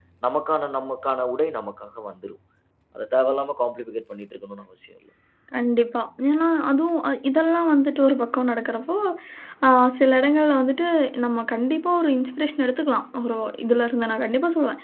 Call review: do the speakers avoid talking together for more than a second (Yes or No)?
Yes